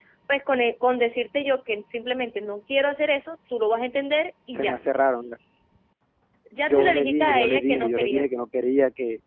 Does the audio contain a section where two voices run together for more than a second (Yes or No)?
Yes